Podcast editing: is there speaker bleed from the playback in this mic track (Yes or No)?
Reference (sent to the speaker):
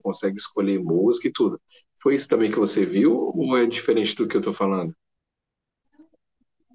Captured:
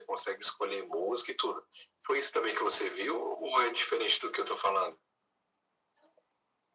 Yes